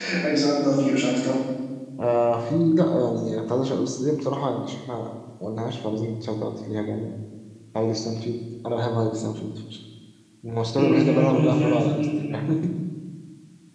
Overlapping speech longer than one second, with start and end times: 10.8-12.4

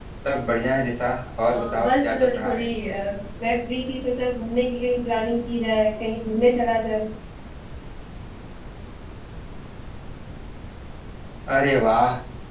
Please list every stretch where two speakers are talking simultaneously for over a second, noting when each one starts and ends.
1.5-2.7

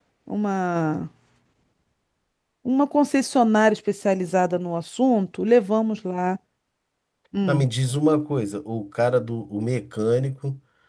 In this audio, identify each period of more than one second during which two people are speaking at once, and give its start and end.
none

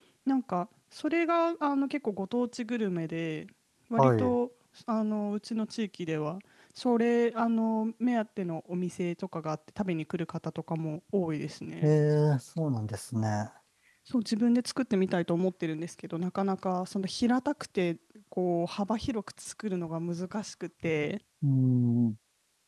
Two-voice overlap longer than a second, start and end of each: none

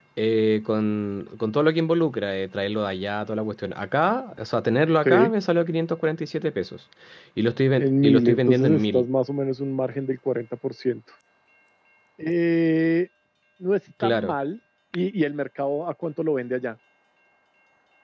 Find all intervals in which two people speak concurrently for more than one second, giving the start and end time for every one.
7.8-9.0

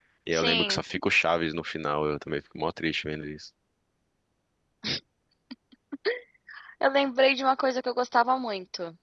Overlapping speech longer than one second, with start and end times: none

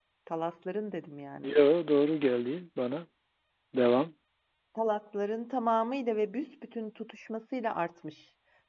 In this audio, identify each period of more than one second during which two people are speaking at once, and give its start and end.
none

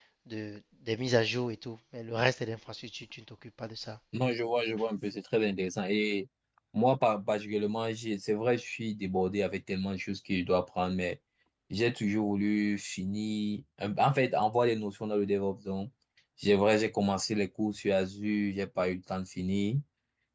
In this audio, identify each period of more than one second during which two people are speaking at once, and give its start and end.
none

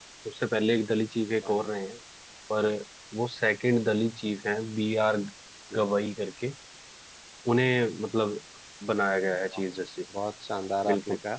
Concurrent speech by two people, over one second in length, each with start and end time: none

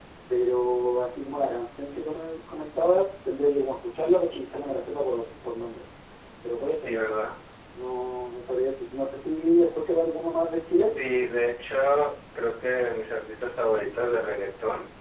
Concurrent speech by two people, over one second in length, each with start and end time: none

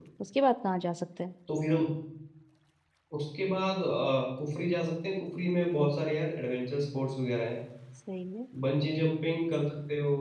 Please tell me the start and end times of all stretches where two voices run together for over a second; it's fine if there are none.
none

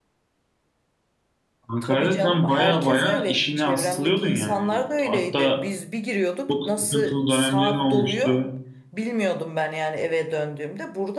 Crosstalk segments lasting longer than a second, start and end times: 1.8-5.6, 6.5-8.4

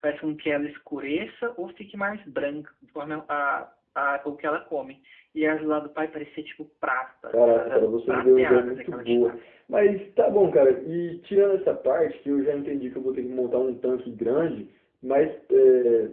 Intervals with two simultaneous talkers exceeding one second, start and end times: 7.3-9.3

